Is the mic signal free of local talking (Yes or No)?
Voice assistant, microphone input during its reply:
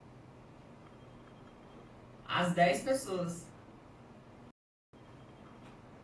No